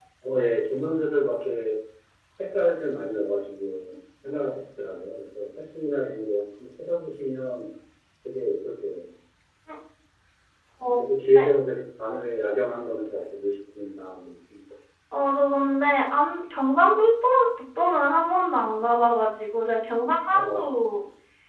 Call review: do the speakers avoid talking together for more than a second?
Yes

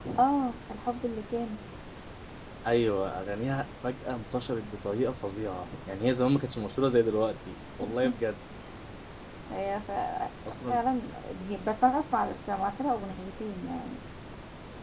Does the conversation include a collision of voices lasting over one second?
No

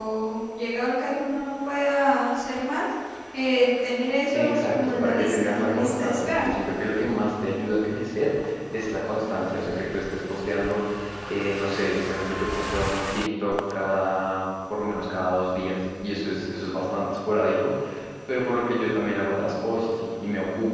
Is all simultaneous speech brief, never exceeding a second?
No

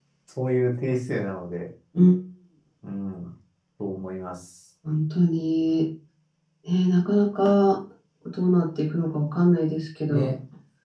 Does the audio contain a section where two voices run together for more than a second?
No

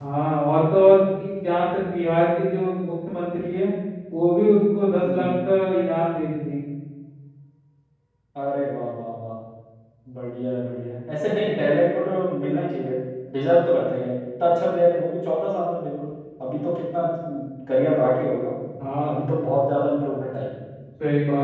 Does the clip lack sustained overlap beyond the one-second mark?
Yes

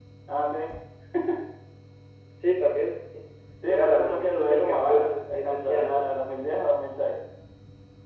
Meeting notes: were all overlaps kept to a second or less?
No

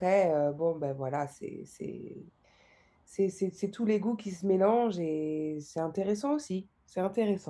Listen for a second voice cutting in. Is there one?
No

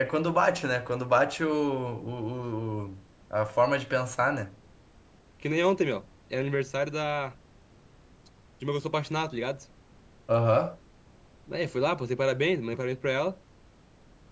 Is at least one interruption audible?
No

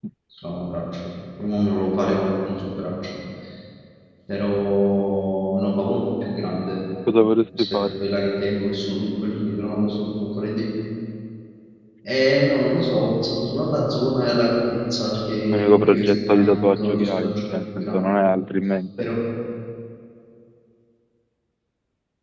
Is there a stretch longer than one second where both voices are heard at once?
Yes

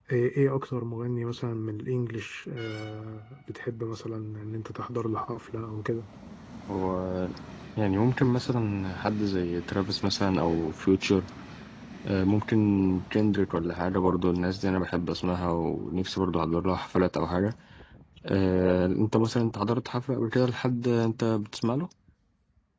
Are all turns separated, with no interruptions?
Yes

